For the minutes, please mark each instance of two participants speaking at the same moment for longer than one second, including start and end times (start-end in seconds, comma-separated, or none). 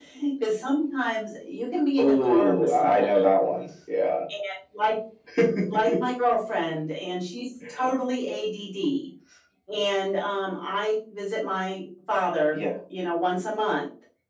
2.0-3.3